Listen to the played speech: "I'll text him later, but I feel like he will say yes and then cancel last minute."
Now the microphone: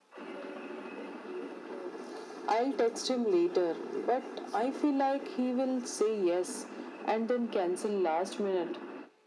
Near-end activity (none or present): none